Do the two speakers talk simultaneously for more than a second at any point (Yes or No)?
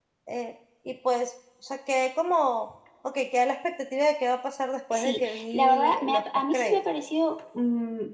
Yes